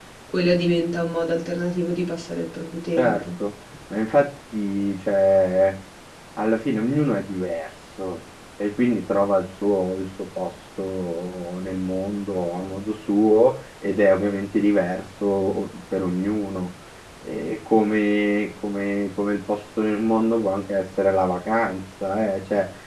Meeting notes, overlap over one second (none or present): none